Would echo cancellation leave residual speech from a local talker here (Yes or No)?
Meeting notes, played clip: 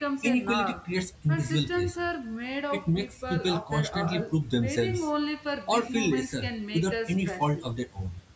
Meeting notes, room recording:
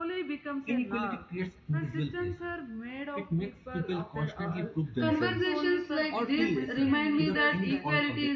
Yes